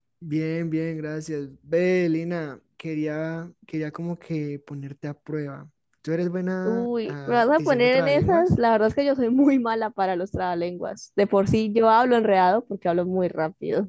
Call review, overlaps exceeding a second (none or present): present